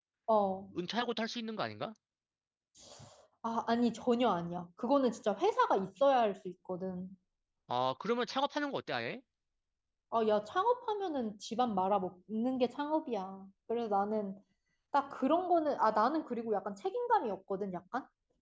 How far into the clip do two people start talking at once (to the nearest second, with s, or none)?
none